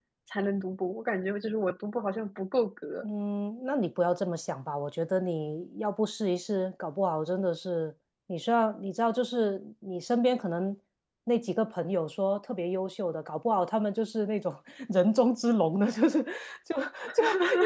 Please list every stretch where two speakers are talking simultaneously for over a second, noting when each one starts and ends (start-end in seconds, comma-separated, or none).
none